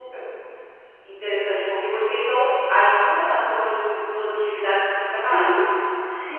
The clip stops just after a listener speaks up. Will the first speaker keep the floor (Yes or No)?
No